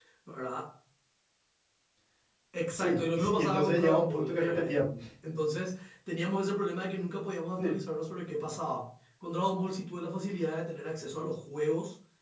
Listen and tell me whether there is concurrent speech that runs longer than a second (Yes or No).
Yes